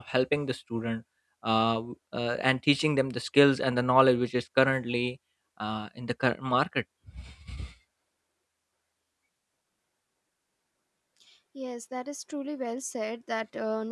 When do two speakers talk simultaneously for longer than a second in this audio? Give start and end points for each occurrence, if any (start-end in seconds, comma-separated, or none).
none